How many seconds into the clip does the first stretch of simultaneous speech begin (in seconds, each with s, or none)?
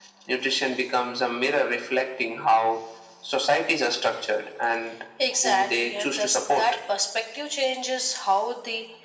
5.4 s